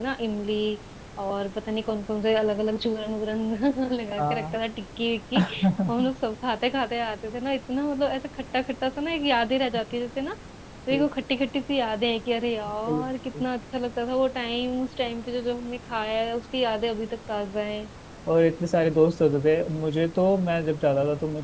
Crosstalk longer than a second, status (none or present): none